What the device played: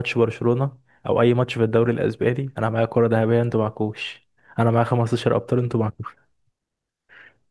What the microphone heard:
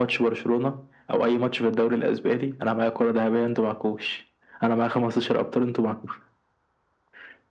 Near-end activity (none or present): none